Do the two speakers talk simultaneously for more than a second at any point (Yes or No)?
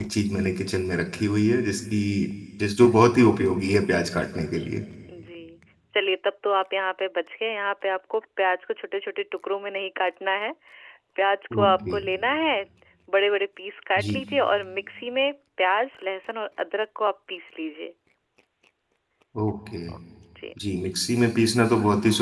No